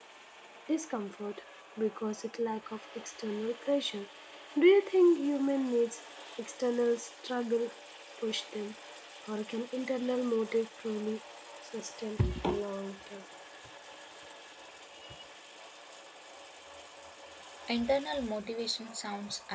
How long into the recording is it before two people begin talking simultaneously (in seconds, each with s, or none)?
none